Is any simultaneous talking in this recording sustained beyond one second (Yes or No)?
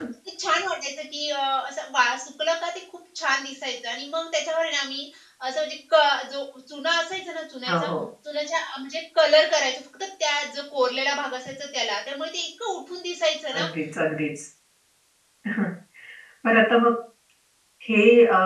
No